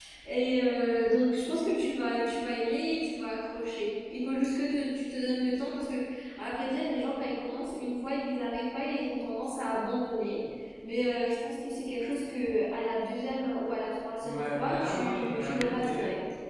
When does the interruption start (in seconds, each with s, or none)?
14.2 s